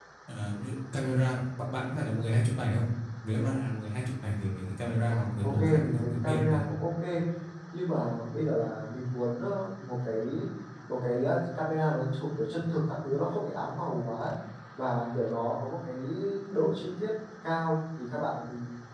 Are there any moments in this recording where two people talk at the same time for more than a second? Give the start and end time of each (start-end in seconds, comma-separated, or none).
5.1-6.6